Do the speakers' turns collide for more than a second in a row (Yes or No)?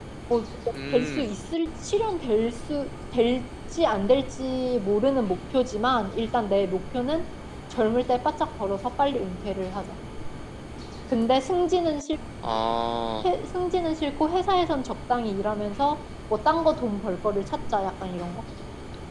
No